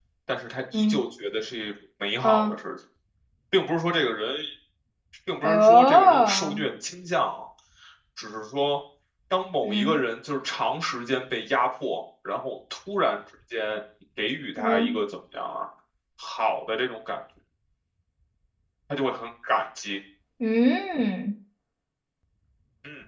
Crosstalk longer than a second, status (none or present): present